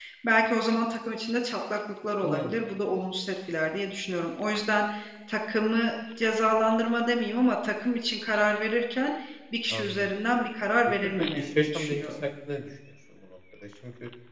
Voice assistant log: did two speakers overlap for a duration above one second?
Yes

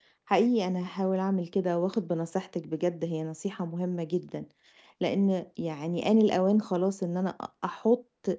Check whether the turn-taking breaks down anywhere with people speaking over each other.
No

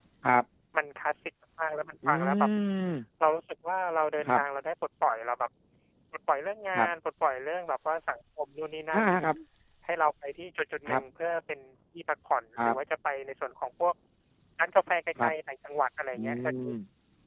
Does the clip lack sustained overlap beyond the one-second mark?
Yes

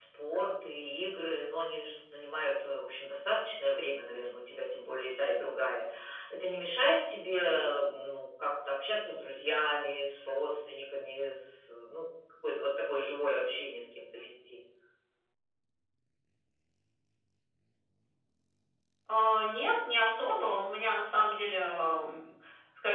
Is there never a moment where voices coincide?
Yes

